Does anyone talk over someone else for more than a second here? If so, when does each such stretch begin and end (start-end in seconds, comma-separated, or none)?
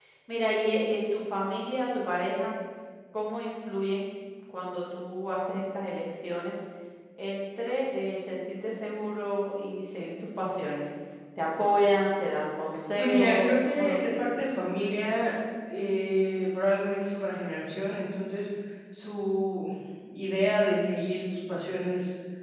13.0-14.3